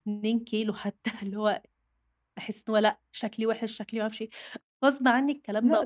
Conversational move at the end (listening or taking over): taking over